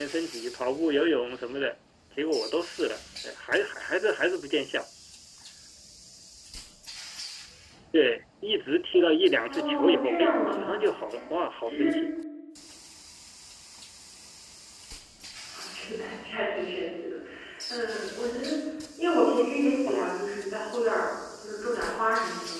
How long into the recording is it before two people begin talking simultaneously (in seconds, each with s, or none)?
9.5 s